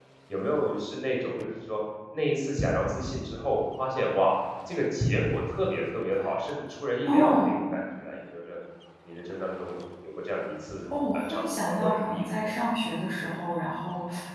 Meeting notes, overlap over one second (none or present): present